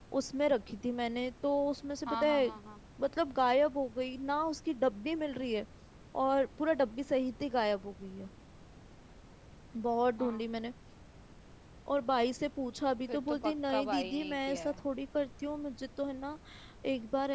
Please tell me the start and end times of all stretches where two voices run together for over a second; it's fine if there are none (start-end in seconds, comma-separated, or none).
13.1-14.8